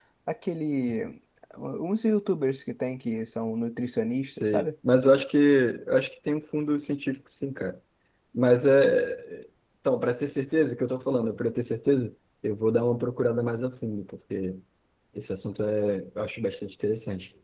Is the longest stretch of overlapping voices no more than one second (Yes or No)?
Yes